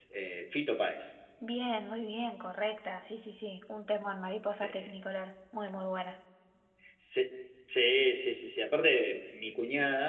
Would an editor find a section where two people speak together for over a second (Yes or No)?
No